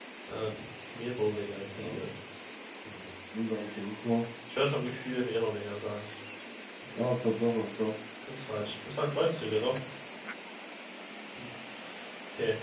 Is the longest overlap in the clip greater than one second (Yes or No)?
No